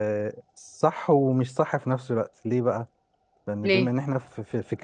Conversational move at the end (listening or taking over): listening